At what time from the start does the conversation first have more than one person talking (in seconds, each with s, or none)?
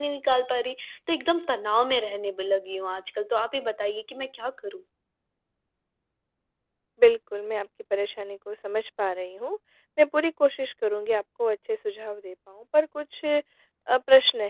none